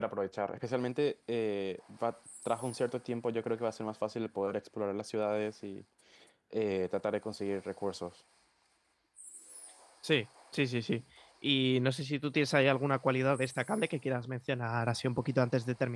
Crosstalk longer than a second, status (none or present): none